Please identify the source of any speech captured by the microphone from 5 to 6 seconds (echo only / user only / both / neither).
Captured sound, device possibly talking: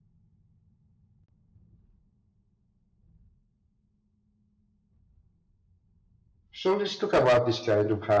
neither